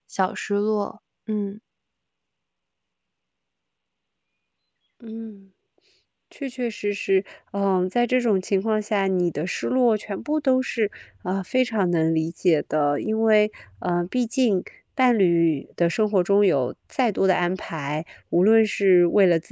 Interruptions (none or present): none